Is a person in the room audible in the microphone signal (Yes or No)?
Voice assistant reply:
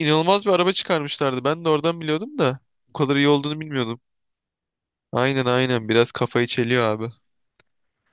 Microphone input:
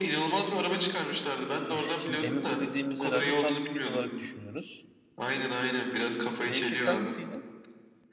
Yes